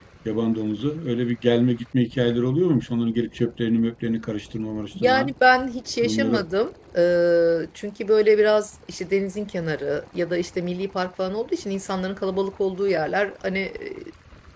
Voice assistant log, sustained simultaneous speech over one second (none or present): none